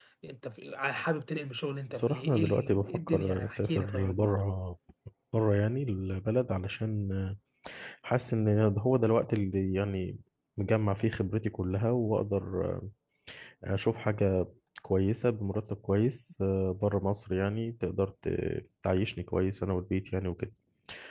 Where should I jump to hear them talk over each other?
1.9 s

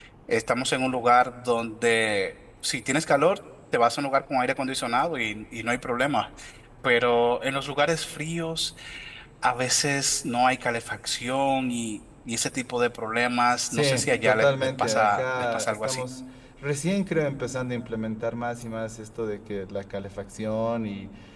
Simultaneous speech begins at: 13.7 s

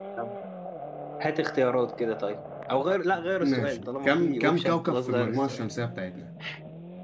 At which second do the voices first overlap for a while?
3.4 s

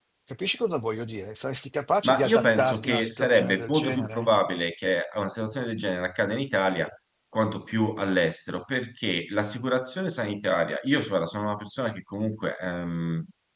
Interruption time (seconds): 2.0 s

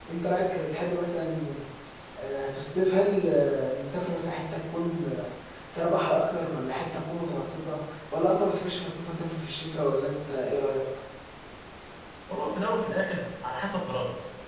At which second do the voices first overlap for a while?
none

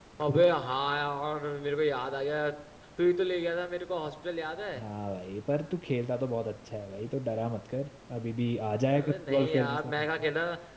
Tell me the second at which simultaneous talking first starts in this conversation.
8.9 s

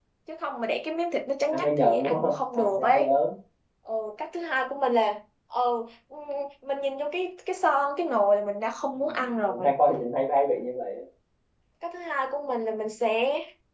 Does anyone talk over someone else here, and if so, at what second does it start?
1.5 s

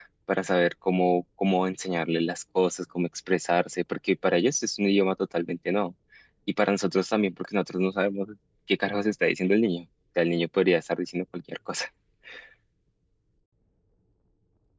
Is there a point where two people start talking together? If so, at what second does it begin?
none

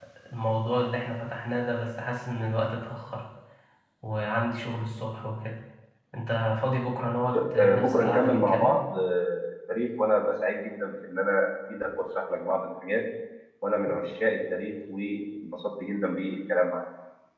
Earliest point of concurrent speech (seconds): 7.3 s

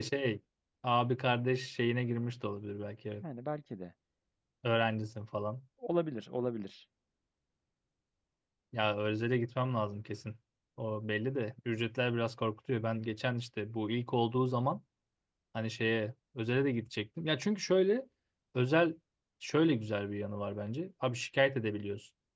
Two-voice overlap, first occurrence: none

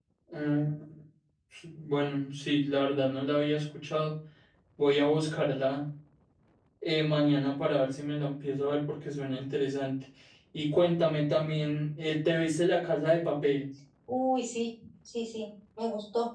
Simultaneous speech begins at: none

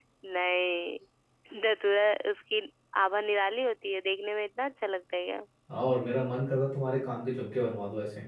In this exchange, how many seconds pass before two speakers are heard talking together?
none

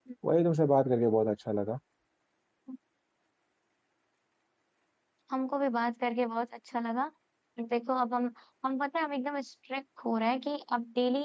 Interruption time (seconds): none

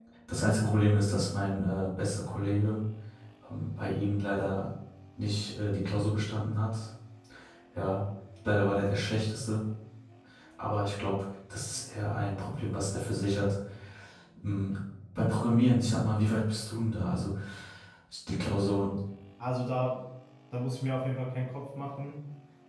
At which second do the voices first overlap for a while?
none

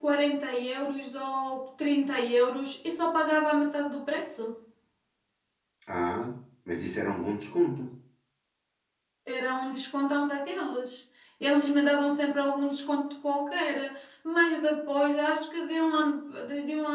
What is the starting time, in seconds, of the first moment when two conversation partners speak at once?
none

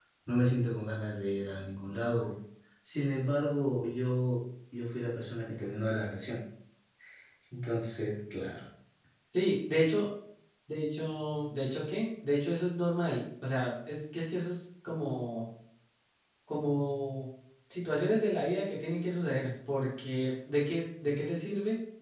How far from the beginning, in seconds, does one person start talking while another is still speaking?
none

